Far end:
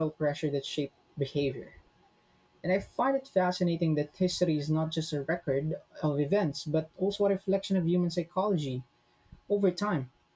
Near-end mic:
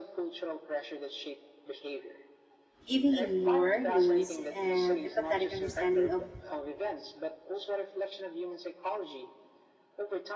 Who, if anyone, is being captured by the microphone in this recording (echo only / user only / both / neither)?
both